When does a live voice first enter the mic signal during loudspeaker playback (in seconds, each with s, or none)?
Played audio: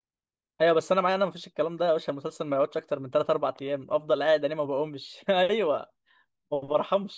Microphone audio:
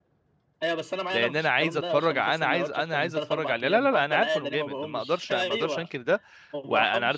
1.1 s